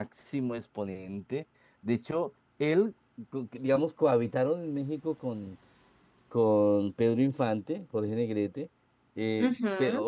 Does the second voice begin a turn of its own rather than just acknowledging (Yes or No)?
No